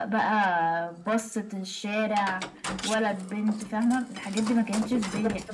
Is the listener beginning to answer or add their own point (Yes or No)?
No